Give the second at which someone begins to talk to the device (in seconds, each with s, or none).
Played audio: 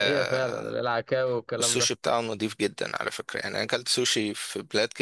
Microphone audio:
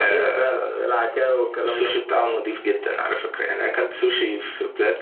none